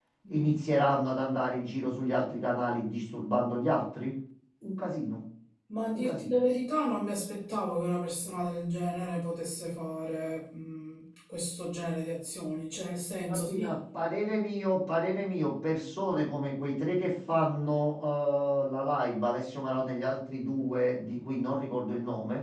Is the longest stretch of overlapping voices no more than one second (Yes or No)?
Yes